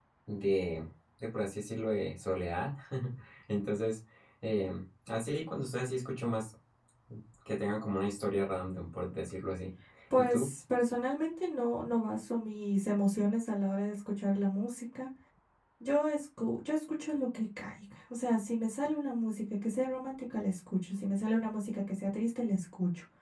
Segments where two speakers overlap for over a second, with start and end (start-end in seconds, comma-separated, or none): none